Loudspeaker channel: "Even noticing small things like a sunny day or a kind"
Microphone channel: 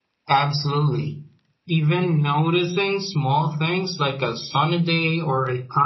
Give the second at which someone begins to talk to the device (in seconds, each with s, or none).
none